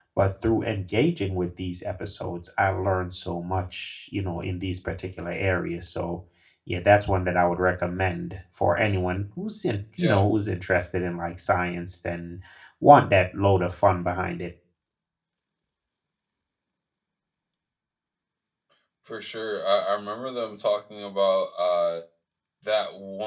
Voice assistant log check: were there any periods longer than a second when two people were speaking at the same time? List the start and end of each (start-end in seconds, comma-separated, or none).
none